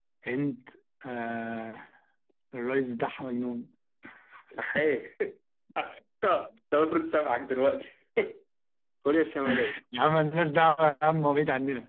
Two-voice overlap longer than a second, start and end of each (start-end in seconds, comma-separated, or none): none